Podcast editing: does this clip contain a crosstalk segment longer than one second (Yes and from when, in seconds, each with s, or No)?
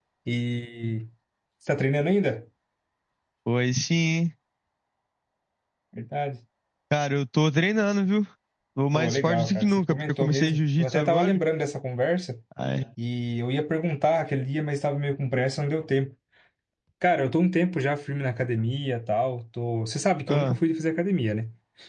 Yes, from 8.9 s